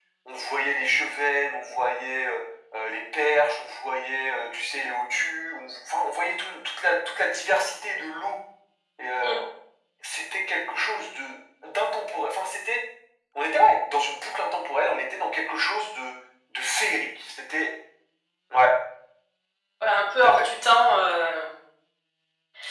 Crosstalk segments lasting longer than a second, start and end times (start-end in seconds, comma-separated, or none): none